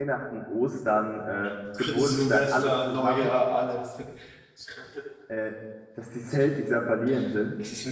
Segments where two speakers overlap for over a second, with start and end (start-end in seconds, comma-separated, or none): 2.0-3.3